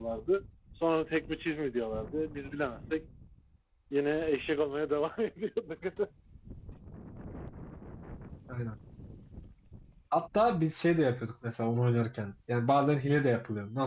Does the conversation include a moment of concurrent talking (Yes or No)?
No